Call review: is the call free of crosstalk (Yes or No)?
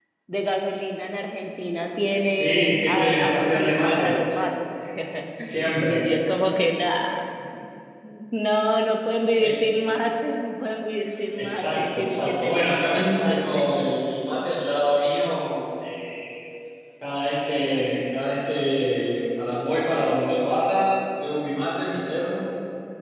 No